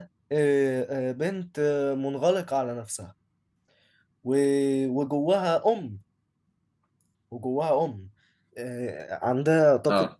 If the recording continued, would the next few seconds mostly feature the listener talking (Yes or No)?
No